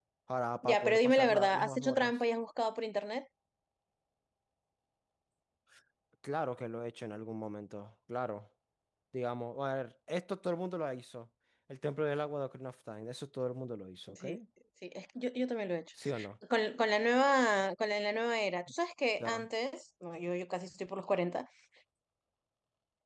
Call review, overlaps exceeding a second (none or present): present